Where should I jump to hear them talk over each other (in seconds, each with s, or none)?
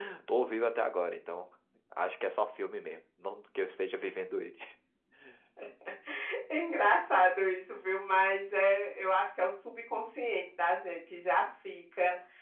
none